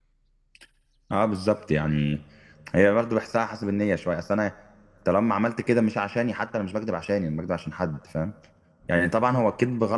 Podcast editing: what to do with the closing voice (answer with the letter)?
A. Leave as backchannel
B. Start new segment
A